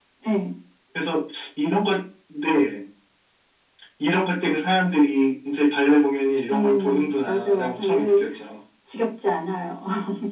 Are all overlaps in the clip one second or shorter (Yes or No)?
No